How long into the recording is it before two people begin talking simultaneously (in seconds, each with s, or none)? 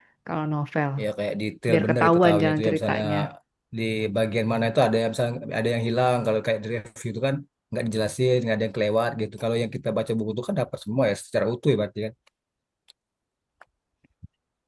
1.7 s